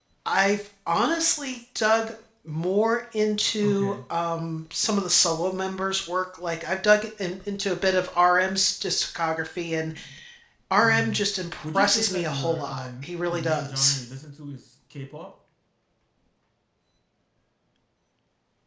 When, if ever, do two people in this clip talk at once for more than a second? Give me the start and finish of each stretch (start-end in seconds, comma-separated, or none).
11.6-14.0